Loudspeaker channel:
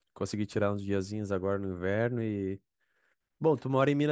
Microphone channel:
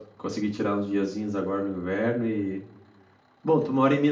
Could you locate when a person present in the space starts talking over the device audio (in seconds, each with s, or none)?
none